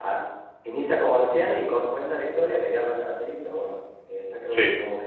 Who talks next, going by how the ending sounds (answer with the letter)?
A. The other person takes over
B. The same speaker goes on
B